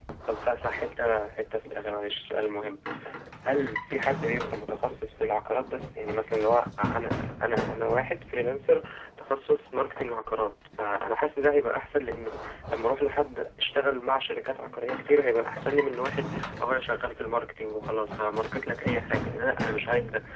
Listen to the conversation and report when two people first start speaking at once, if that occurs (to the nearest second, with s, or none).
none